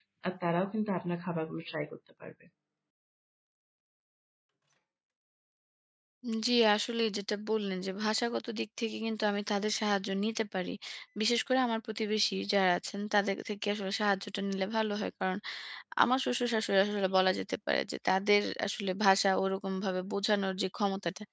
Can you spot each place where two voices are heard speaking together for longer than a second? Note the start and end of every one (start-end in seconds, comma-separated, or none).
none